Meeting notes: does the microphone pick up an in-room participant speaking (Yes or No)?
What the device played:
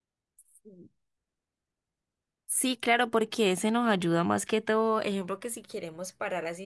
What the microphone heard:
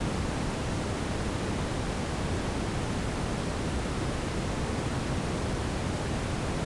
No